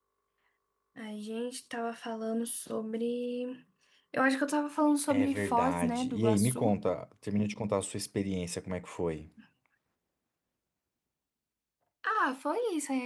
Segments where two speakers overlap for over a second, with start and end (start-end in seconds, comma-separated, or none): 5.1-6.7